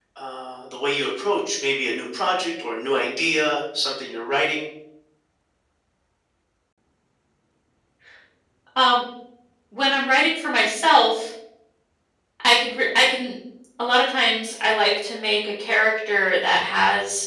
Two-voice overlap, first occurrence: none

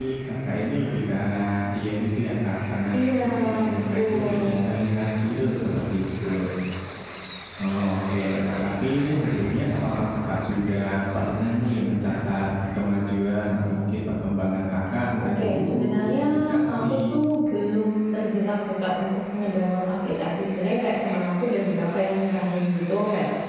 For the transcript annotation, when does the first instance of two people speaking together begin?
2.9 s

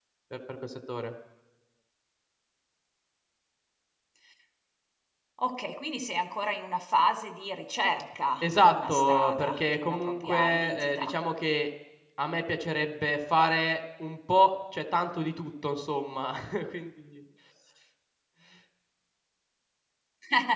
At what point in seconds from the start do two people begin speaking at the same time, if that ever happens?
8.4 s

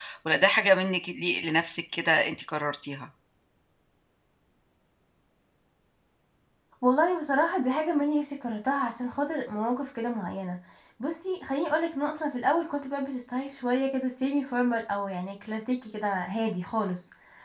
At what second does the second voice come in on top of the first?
none

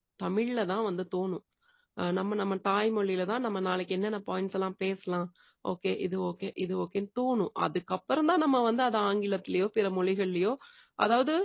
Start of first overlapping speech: none

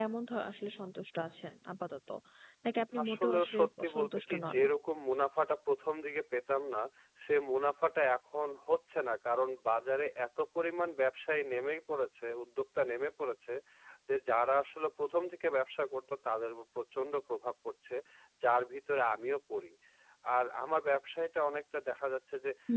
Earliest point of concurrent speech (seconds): 3.0 s

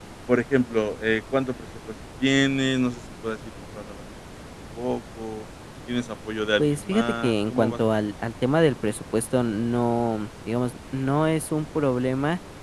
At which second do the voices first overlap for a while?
6.6 s

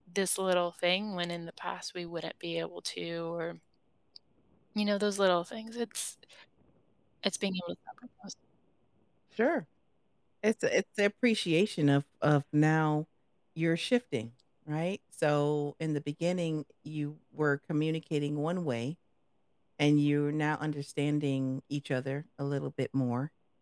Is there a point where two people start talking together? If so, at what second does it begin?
none

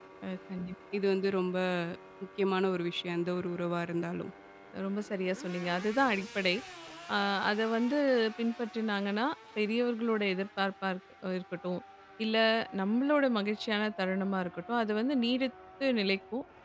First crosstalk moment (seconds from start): none

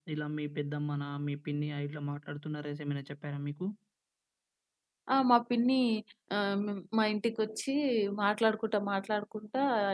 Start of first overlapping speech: none

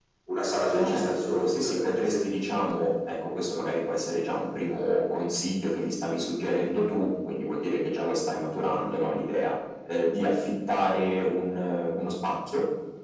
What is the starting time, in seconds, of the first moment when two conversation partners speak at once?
0.7 s

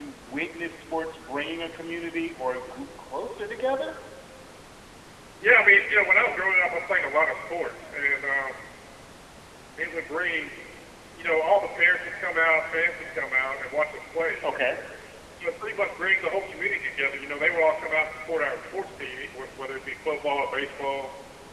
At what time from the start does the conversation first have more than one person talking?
none

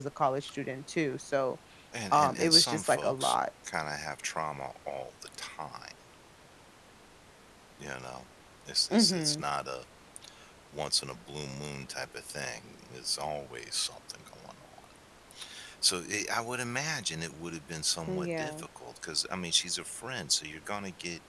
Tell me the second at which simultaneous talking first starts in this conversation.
2.1 s

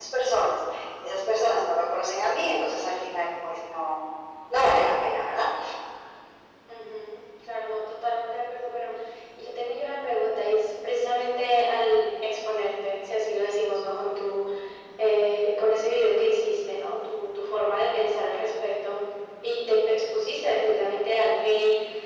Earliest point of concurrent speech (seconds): none

